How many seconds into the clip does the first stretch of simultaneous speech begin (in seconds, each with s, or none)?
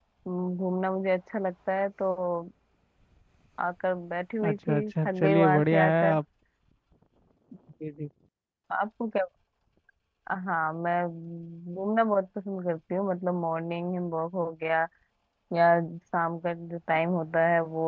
4.4 s